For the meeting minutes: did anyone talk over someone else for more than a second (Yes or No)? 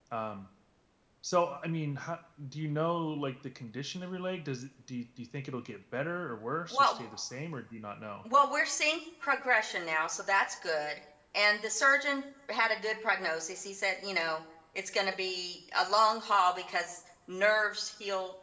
No